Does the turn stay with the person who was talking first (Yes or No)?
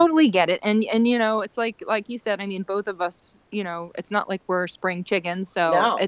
Yes